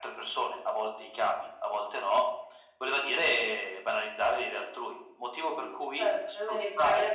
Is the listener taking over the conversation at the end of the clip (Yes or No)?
Yes